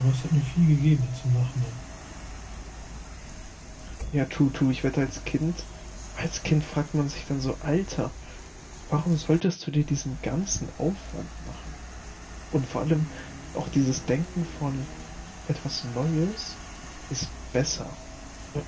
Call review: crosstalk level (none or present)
none